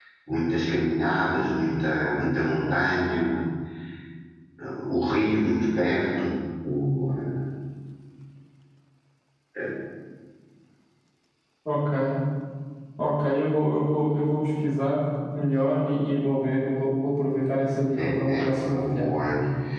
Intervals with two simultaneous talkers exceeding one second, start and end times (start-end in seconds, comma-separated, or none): 18.0-19.2